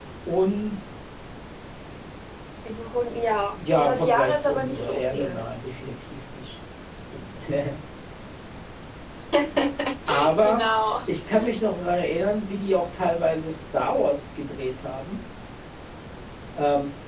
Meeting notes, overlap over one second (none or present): present